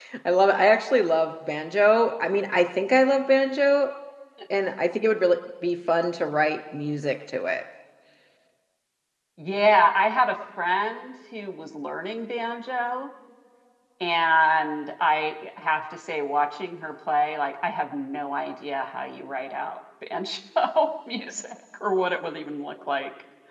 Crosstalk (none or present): none